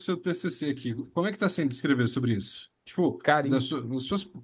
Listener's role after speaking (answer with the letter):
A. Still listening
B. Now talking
A